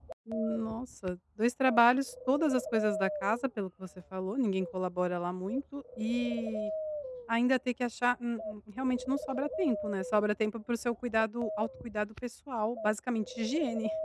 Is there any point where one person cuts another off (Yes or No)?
No